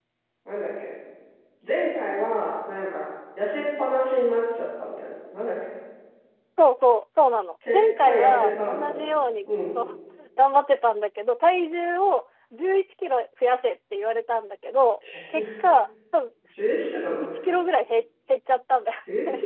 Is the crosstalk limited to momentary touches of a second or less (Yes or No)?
No